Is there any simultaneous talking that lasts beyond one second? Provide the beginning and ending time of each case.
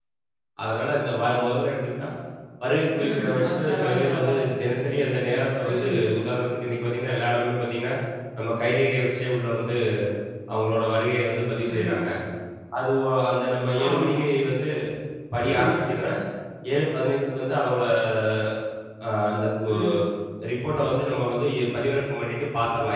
3.0-4.5

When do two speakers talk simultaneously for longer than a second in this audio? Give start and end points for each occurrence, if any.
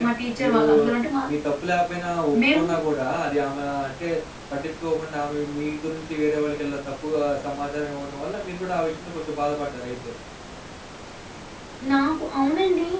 none

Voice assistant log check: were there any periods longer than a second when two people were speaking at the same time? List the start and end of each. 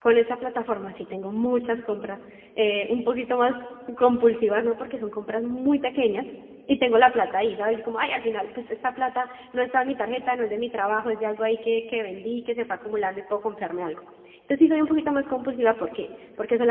none

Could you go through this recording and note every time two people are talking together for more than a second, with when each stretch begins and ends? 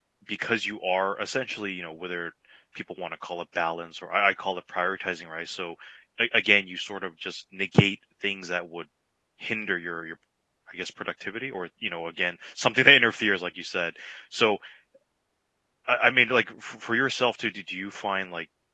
none

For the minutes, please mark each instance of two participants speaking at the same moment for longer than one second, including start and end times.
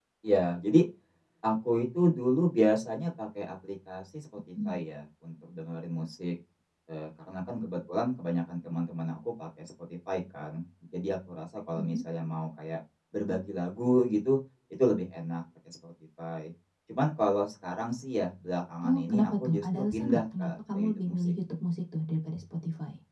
18.9-21.3

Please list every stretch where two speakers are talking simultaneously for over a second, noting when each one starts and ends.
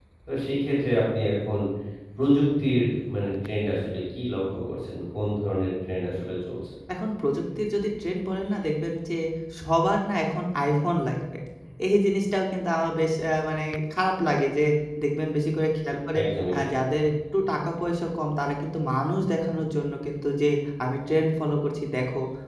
none

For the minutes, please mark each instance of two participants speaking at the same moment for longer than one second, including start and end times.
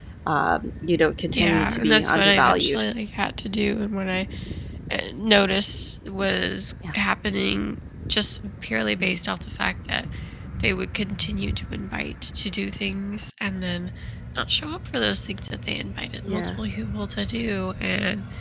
1.3-2.8

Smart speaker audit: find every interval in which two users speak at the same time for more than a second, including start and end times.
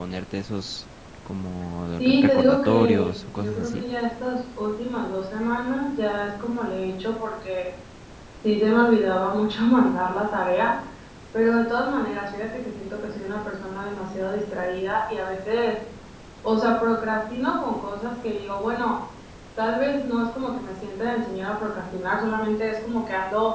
2.0-3.8

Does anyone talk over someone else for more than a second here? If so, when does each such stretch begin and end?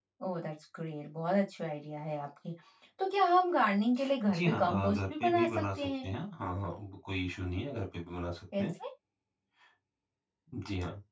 4.4-6.0

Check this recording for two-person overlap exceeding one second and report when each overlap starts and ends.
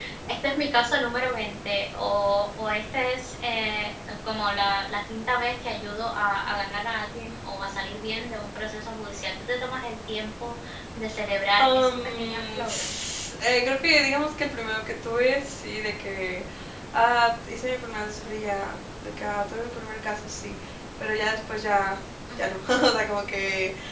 11.6-13.0

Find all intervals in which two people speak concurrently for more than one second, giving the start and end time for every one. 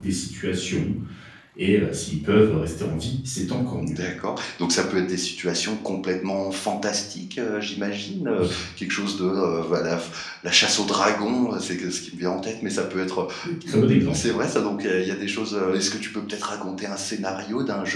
none

